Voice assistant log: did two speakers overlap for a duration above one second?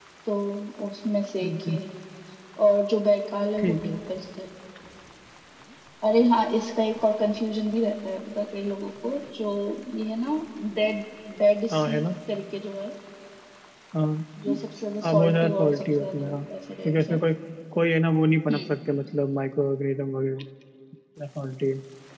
Yes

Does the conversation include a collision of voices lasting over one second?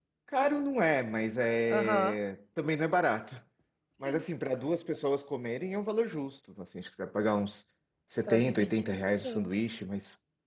Yes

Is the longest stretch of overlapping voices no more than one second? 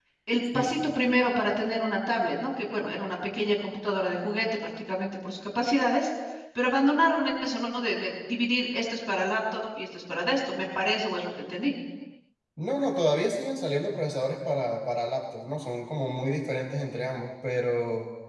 Yes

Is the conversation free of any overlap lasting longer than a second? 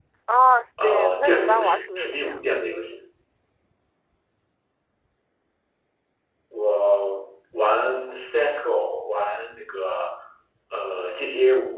No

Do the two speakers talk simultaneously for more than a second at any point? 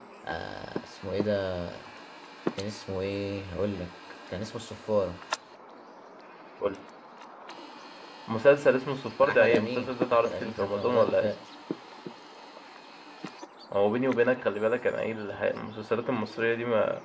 Yes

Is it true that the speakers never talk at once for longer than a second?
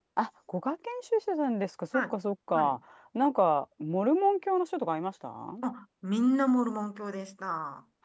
Yes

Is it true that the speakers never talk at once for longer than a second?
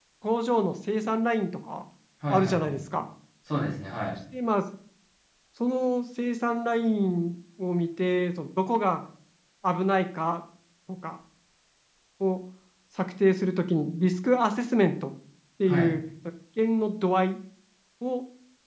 Yes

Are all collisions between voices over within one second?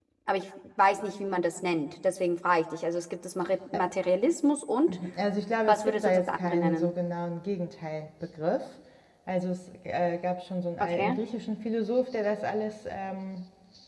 No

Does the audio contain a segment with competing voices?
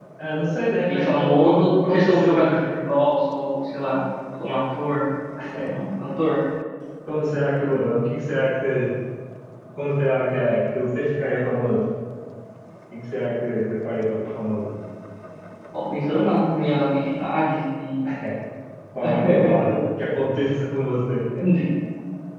Yes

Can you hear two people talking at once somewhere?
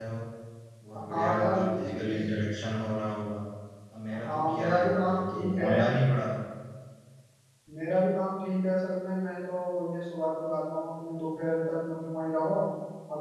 Yes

